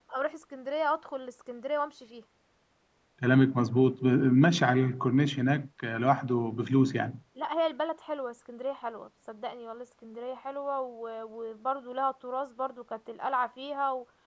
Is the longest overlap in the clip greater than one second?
No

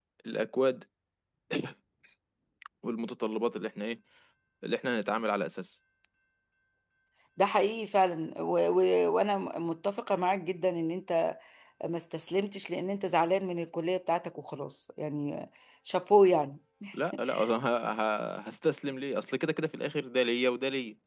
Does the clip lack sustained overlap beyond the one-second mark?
Yes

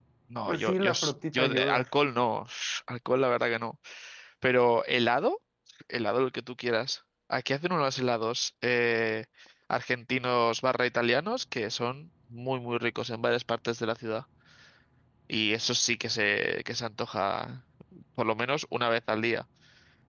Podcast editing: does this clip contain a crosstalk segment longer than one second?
Yes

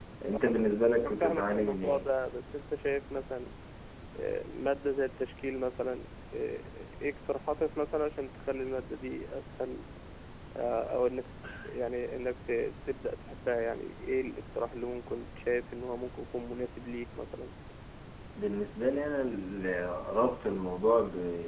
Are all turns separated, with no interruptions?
No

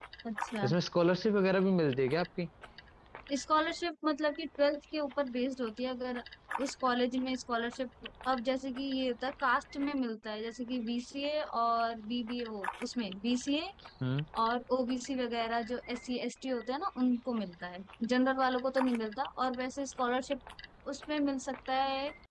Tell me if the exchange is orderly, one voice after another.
Yes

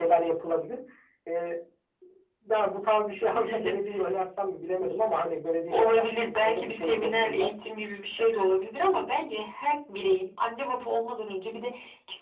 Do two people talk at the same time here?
Yes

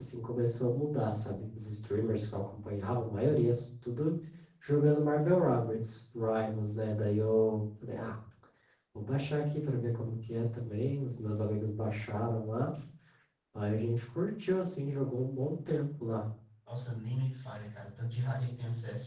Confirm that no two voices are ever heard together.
Yes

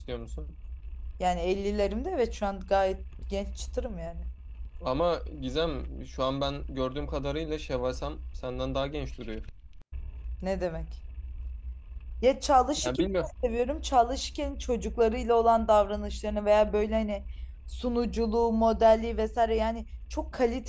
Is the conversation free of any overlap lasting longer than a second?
Yes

